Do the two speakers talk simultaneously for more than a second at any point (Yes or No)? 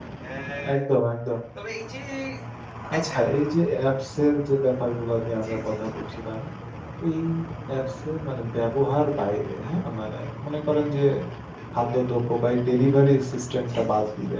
No